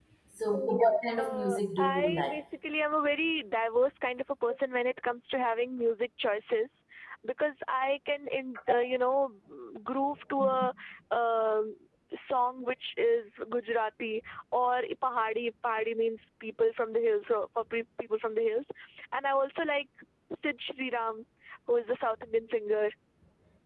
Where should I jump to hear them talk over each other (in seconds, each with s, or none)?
1.2 s